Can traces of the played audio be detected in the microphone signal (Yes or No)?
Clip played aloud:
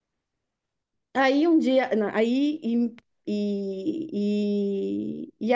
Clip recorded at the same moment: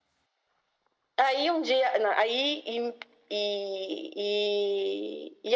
Yes